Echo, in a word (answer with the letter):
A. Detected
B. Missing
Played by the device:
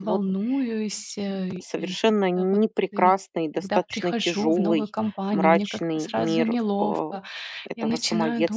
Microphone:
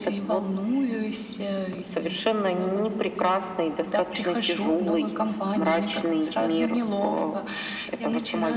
A